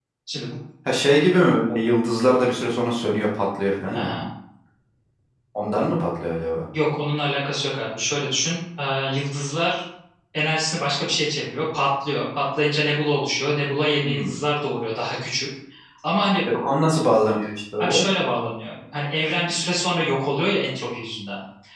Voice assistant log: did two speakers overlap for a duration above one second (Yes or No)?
No